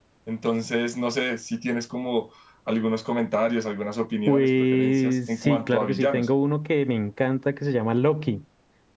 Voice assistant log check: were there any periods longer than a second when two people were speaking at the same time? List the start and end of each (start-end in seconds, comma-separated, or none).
4.3-6.3